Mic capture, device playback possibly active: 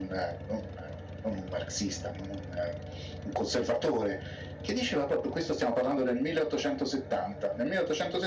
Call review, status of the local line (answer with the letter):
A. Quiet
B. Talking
A